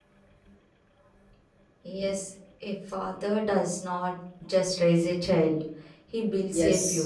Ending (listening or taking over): taking over